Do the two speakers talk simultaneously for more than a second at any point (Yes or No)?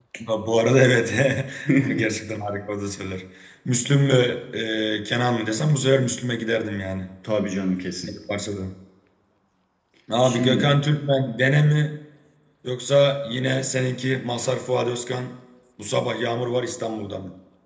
No